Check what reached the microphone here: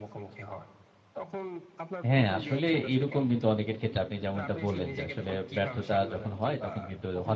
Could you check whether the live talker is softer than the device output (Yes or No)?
No